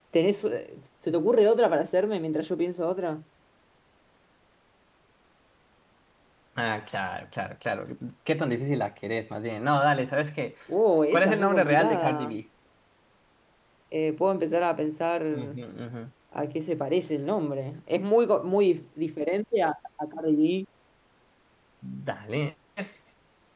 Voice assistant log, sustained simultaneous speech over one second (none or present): present